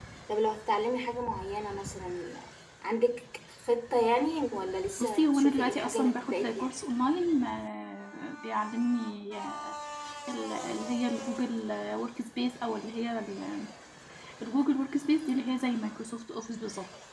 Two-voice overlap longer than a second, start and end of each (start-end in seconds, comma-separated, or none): 5.0-6.7